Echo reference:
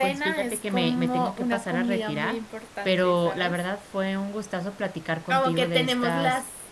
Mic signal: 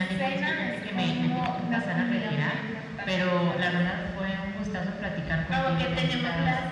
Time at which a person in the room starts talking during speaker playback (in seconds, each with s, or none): none